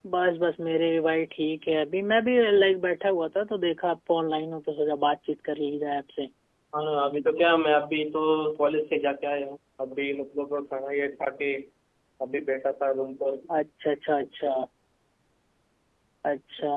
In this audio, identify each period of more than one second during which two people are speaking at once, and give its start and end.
none

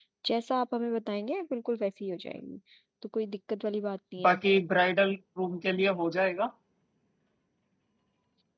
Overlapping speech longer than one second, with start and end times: none

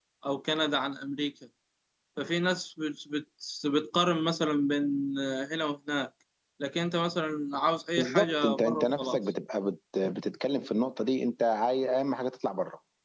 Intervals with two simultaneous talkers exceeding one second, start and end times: 8.0-9.2

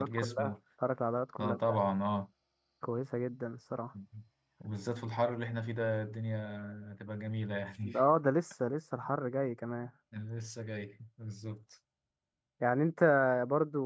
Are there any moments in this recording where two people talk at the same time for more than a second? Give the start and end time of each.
none

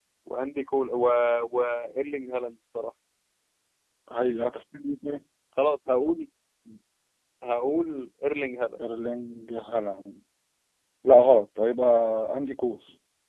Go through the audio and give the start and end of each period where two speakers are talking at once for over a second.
none

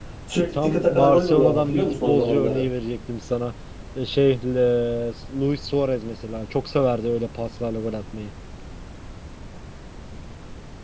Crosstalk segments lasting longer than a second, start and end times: 0.5-2.6

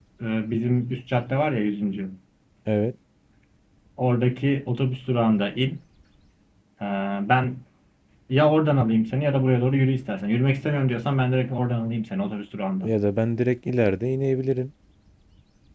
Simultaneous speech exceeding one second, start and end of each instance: none

